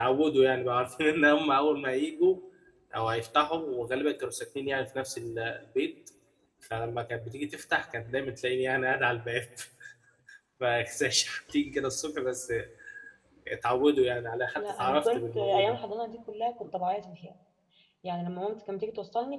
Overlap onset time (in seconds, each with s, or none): 14.6 s